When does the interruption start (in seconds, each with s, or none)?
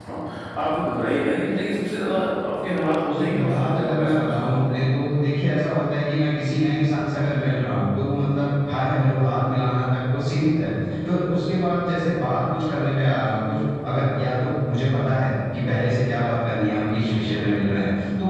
3.1 s